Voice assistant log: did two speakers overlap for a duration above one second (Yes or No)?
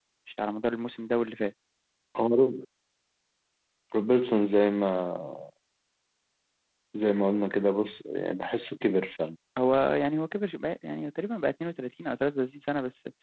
No